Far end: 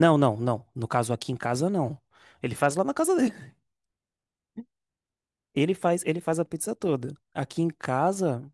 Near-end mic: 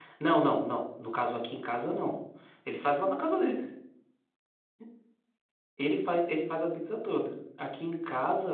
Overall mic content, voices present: echo only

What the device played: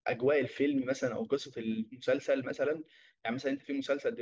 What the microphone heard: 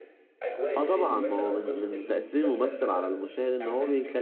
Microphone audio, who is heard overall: both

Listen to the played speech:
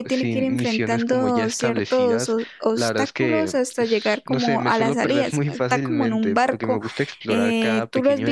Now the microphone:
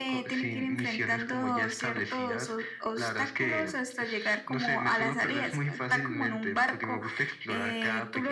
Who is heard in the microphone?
echo only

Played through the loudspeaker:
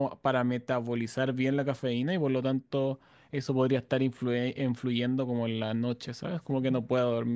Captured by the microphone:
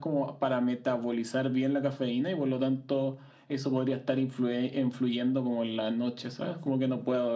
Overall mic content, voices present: echo only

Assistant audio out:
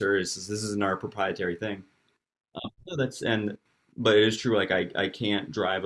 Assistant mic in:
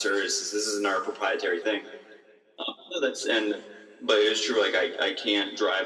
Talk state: echo only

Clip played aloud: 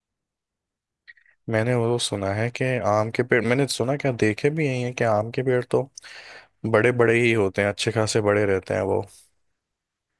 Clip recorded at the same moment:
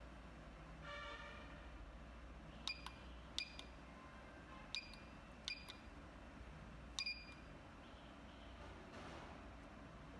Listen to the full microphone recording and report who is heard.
neither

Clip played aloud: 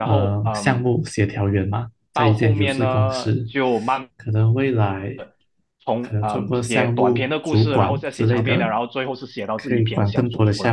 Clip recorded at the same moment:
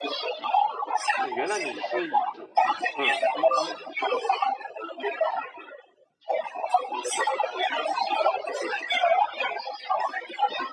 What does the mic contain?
both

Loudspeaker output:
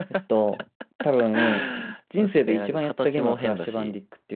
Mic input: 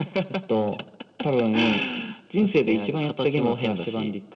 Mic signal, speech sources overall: echo only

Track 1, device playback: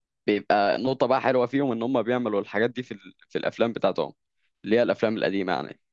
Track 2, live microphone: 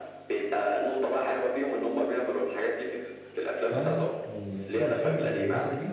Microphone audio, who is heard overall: both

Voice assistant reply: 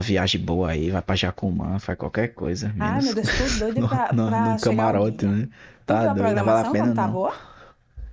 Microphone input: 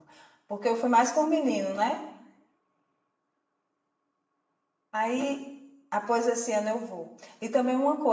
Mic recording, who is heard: user only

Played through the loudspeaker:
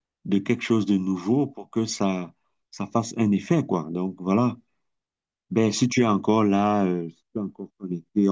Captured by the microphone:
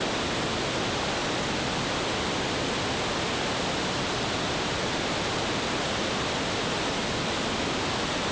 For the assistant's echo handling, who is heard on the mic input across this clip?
neither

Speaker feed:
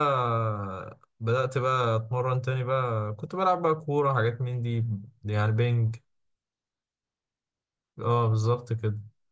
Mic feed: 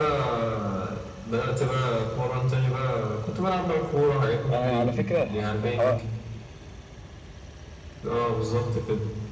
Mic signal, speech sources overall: both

